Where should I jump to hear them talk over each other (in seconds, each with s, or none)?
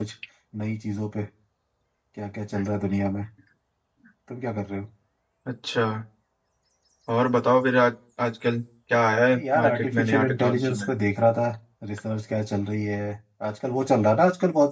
9.3 s